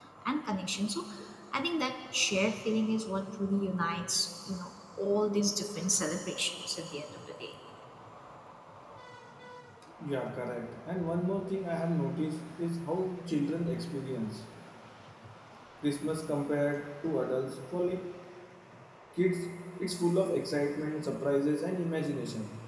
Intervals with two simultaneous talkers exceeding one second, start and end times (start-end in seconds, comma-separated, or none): none